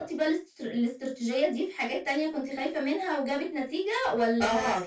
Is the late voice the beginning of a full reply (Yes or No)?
Yes